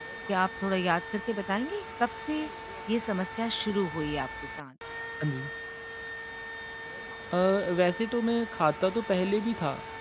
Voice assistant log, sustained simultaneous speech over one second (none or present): none